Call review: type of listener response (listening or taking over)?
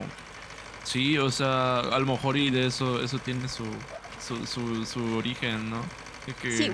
taking over